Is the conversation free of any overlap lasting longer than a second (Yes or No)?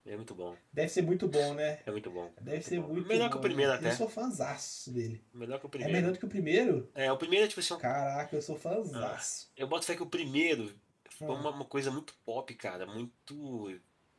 No